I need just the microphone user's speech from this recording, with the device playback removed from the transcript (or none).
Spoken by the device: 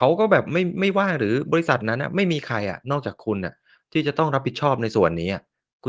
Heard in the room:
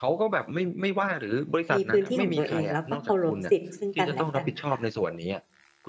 มีพื้นที่ของตัวเอง แล้วก็เคารพสิทธิ์ซึ่งกันและกันน่ะค่ะ